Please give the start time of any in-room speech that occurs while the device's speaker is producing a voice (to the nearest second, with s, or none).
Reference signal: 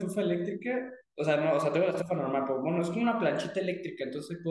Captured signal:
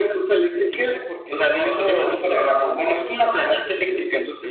1 s